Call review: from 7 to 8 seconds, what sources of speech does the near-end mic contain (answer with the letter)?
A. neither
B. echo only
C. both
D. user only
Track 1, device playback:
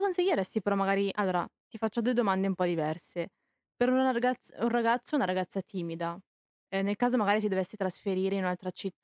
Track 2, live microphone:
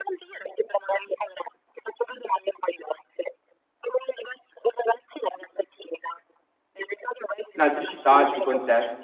C